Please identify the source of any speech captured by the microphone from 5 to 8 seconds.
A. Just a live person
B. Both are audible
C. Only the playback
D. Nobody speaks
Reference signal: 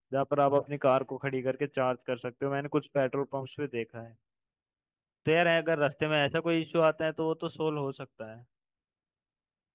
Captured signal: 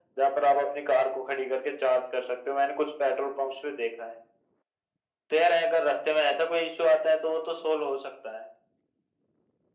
C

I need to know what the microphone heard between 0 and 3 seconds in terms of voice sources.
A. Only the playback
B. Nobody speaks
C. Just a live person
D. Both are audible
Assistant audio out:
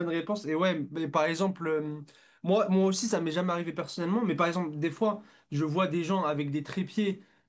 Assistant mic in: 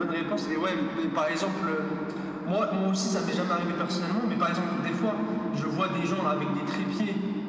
A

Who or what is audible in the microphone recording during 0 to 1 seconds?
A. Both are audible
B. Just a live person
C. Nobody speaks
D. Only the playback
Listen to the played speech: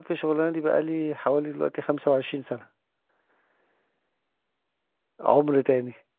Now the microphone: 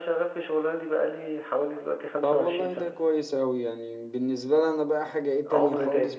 D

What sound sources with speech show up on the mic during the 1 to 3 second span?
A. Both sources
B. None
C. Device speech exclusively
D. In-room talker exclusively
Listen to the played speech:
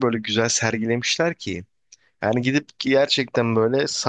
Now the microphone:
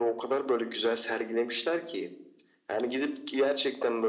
C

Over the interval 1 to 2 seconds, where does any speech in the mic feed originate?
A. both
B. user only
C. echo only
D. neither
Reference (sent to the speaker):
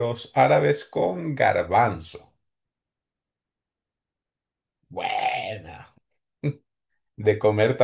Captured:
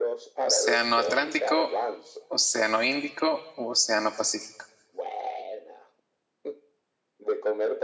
A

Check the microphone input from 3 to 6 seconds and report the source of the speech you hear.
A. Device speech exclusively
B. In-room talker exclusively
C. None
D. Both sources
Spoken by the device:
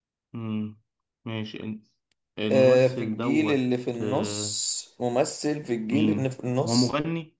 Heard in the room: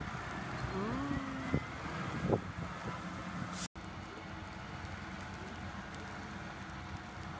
C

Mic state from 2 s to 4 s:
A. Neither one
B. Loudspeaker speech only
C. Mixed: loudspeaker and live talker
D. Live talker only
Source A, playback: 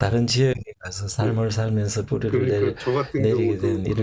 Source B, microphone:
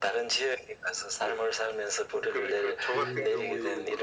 C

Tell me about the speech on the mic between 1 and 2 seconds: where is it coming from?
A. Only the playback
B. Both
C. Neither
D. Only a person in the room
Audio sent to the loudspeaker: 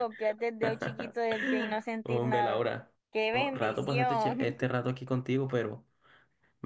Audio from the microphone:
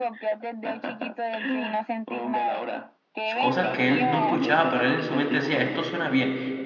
A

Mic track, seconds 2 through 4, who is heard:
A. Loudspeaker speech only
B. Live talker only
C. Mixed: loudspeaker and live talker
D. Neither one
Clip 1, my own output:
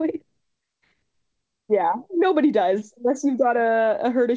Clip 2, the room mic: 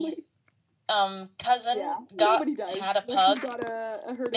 C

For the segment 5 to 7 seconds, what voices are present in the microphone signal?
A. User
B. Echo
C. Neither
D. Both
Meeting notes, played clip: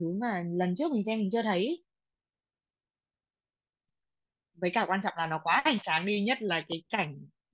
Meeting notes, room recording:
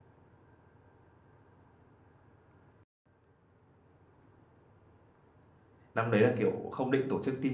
A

